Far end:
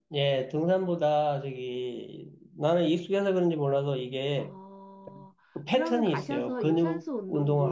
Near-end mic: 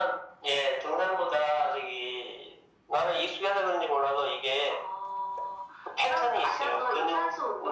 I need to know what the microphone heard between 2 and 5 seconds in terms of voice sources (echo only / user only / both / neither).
echo only